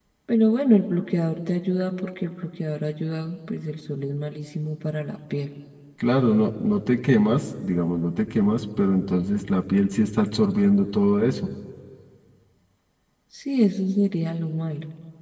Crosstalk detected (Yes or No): No